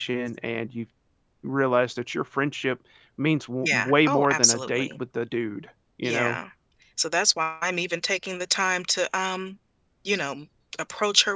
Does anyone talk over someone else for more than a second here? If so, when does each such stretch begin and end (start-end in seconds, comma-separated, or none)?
3.6-5.0